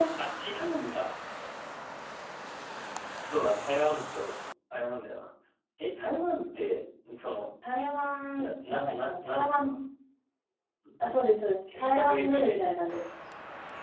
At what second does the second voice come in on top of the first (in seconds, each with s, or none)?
8.3 s